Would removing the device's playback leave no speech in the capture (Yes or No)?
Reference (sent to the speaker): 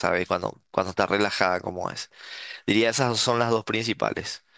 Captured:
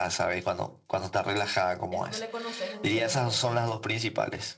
No